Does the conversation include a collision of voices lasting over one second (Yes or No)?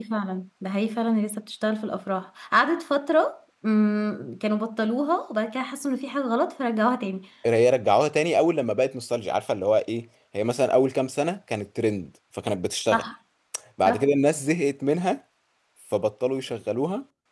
No